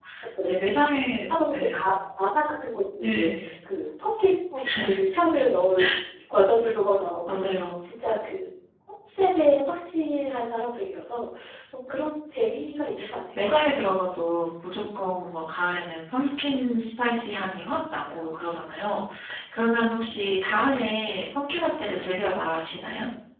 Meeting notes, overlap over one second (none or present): none